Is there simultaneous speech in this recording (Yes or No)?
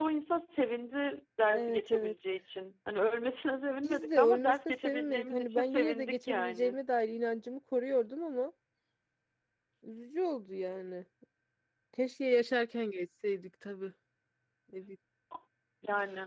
Yes